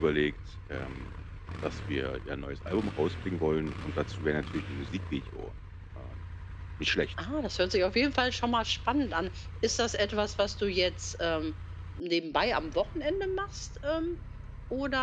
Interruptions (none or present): none